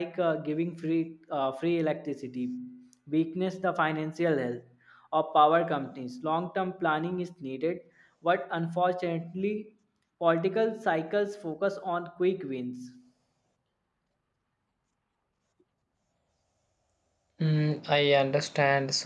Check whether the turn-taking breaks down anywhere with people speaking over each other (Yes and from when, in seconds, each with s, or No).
No